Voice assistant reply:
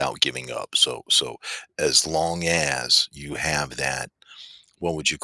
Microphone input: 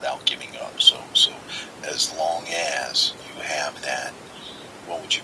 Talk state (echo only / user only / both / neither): echo only